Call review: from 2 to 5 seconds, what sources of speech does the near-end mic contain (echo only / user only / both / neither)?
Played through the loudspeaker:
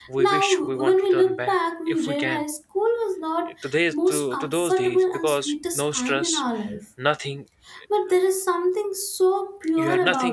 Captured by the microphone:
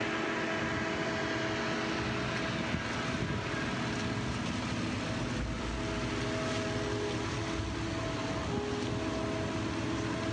neither